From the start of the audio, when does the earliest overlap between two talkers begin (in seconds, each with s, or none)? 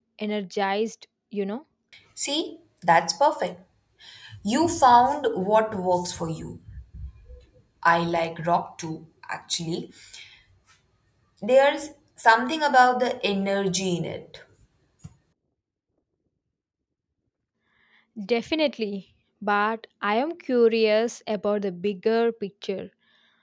none